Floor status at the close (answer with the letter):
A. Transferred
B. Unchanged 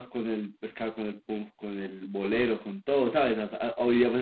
B